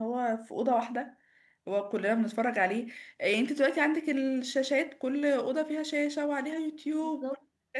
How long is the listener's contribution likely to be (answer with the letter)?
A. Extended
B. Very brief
B